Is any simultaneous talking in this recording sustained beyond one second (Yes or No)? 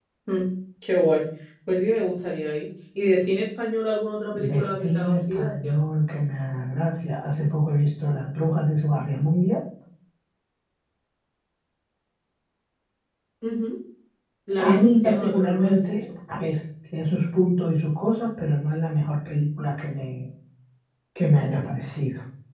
Yes